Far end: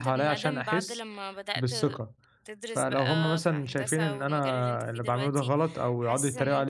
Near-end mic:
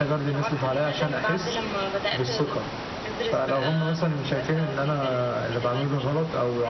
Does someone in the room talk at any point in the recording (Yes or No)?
No